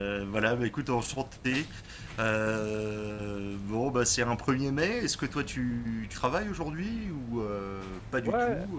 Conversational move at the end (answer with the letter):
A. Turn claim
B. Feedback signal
A